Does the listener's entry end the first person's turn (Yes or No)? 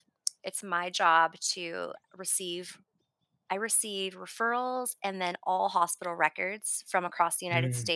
No